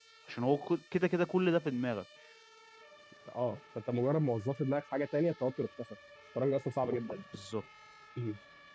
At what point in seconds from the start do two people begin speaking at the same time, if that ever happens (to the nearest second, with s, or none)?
none